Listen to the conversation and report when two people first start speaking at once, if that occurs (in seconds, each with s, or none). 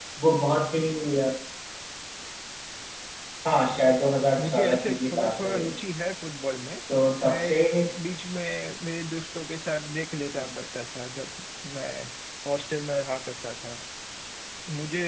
4.4 s